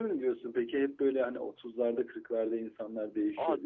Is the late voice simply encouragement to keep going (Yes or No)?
No